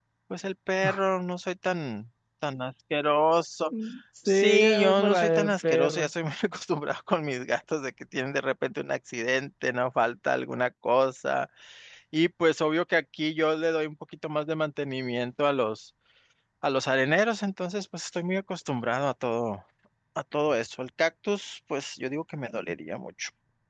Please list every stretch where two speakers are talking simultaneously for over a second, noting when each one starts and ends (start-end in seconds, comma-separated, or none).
4.3-6.1